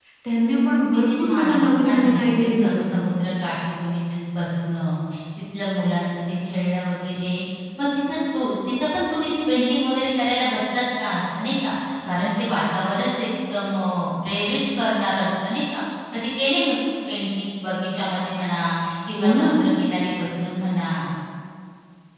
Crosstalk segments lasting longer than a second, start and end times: 1.1-3.0

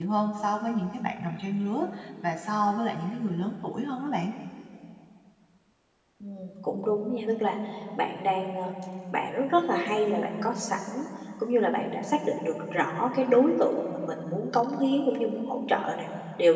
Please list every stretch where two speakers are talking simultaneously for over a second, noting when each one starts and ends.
none

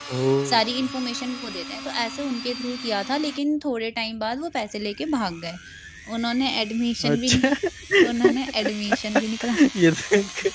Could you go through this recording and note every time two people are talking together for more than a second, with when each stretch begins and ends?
none

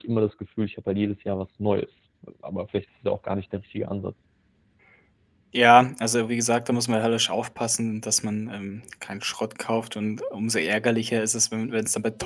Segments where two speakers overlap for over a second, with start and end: none

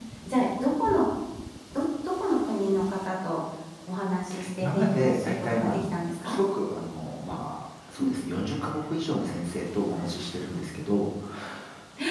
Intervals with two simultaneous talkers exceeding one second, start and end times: 4.6-5.8

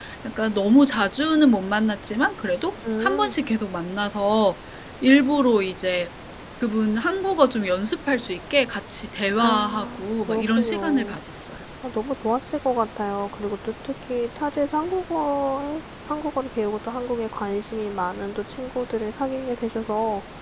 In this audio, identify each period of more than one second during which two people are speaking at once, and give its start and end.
9.4-11.2

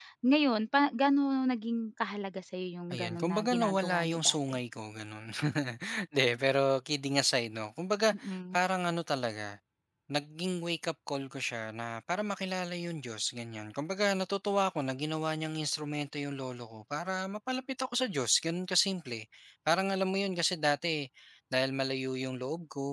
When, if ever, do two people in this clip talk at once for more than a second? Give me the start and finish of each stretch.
2.9-4.4

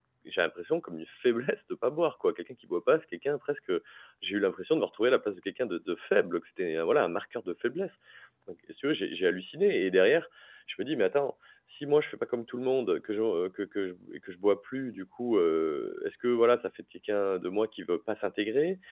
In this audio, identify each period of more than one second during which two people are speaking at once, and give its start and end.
none

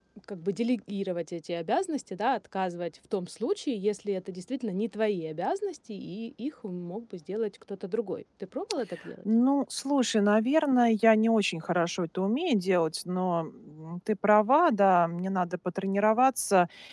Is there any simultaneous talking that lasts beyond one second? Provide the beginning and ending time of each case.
none

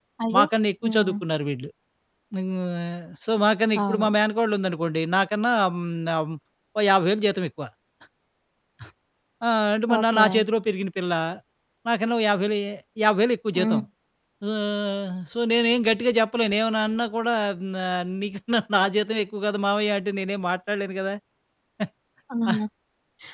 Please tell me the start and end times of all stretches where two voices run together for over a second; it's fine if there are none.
none

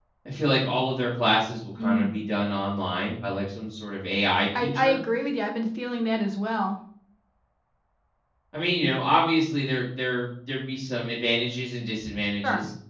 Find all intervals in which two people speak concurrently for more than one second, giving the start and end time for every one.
none

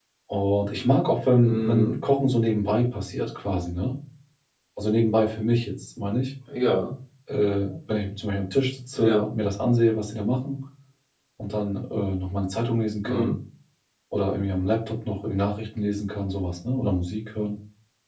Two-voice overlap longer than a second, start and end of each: none

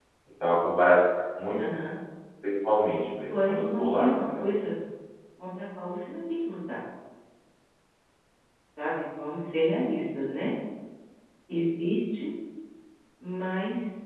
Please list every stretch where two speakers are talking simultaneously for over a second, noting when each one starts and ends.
3.2-4.5

